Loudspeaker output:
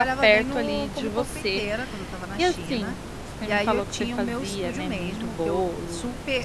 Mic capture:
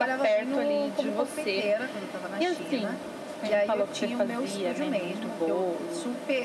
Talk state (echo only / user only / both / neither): echo only